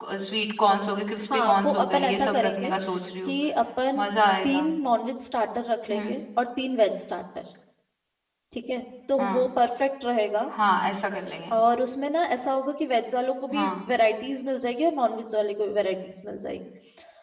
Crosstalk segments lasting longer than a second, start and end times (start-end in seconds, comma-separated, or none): 1.3-2.7